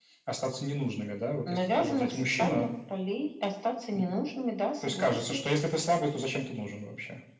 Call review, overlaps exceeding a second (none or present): present